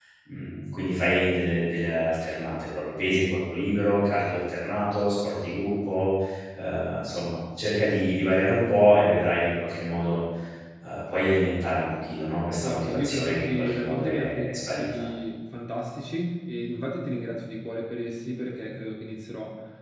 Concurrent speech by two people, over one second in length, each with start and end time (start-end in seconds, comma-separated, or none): 12.6-14.9